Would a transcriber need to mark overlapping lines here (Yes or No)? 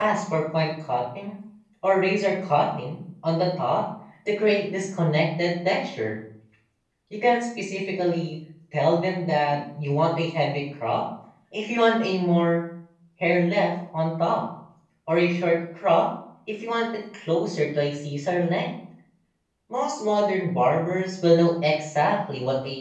No